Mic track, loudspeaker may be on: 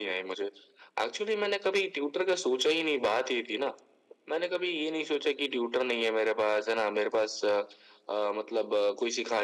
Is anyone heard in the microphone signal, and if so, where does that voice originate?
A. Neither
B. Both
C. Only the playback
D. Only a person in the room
C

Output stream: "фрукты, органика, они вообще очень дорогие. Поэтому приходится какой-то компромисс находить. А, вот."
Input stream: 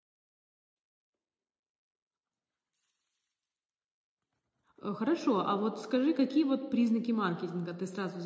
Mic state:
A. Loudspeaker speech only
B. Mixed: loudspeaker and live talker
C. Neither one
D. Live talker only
D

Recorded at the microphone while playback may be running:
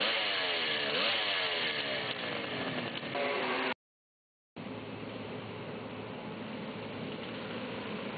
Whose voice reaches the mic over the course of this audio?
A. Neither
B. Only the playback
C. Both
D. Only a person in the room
A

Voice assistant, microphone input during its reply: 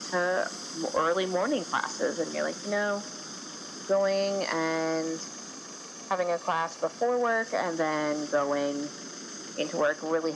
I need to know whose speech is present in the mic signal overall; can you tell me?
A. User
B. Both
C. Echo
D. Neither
C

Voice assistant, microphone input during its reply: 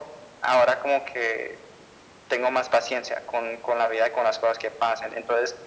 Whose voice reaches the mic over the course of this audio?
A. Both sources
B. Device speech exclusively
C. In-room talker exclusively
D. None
B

